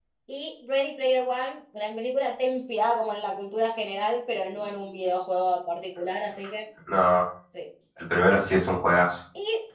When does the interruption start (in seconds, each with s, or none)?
none